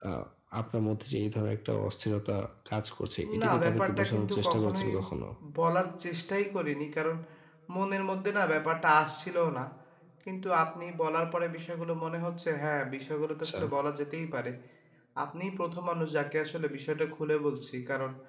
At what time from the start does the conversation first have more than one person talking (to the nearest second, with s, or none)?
3 s